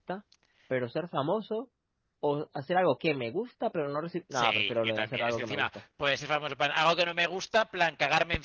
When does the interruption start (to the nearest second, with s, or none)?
4 s